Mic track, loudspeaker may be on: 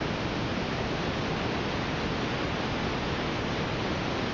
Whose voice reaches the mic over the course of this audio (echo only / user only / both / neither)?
neither